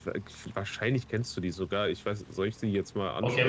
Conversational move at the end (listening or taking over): taking over